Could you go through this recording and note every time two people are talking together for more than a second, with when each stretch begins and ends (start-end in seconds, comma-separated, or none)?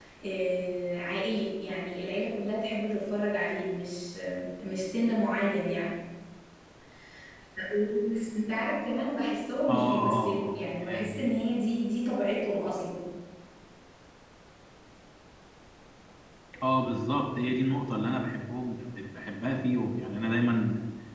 9.7-11.3